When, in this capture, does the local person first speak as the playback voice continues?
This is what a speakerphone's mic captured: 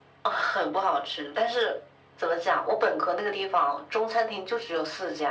none

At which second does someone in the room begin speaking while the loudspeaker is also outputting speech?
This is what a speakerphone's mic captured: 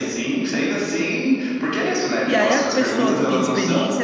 2.2 s

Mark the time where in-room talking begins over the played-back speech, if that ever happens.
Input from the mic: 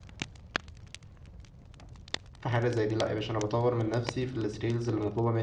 2.4 s

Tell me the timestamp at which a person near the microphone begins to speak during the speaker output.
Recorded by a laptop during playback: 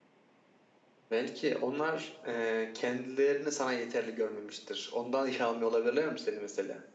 1.1 s

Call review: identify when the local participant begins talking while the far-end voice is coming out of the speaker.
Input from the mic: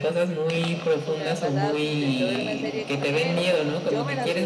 1.0 s

